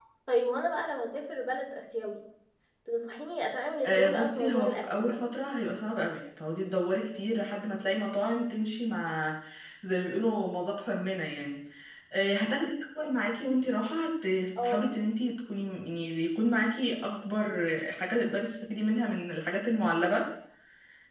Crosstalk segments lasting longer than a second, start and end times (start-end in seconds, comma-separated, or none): 3.8-5.2